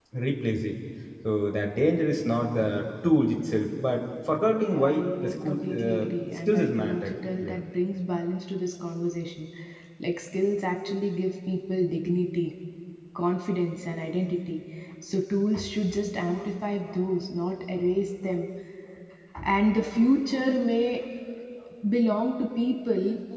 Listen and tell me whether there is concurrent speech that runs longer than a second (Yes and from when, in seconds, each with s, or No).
Yes, from 4.6 s